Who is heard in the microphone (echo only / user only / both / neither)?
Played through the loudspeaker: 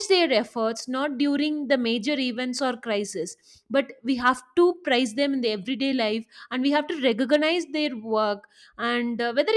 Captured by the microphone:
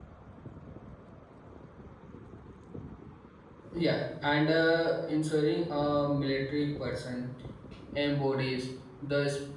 user only